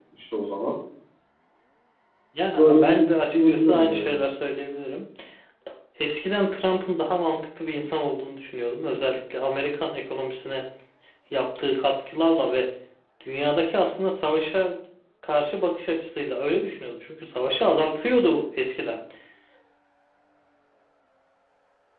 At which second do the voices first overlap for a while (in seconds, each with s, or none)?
2.6 s